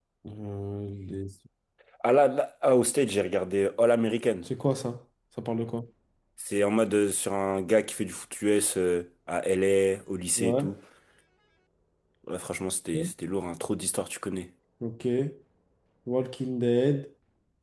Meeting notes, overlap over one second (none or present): none